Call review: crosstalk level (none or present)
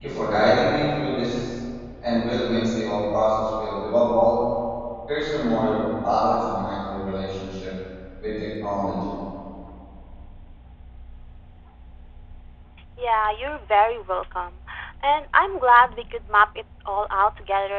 none